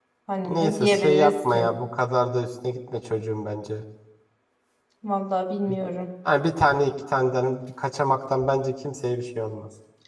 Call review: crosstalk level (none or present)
present